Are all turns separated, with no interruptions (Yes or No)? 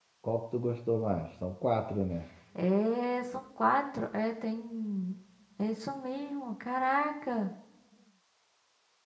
Yes